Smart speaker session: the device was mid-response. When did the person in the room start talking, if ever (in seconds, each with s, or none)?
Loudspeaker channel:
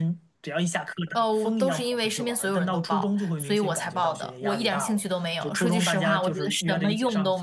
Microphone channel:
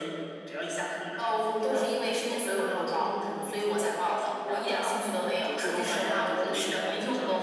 none